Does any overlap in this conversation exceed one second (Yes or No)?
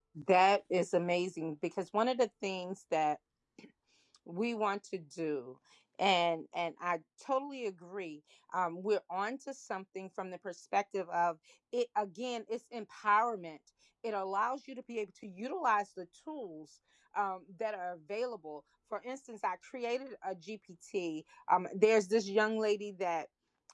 No